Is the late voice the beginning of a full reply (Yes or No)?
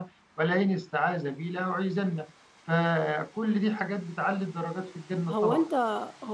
Yes